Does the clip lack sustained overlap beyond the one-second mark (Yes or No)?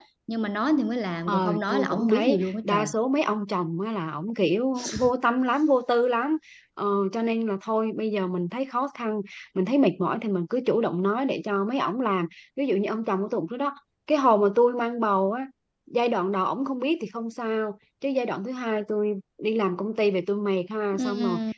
No